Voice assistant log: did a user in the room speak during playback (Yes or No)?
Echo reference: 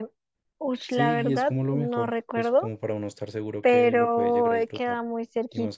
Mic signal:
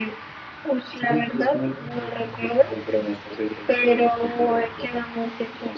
No